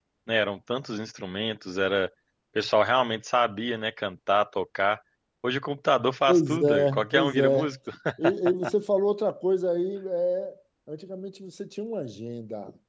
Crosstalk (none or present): present